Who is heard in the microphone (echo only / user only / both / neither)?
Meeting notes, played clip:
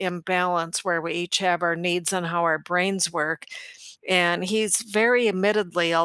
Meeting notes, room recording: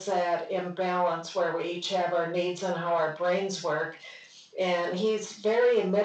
echo only